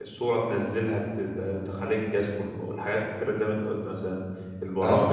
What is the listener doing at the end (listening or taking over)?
listening